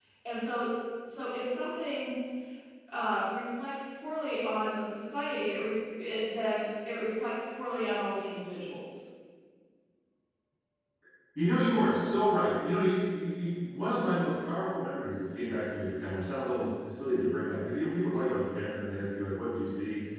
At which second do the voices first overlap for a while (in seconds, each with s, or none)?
none